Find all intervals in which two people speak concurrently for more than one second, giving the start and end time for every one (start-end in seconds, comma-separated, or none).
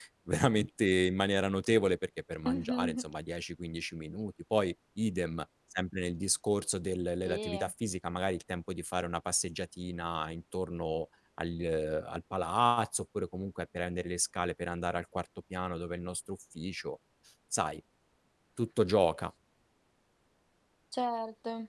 none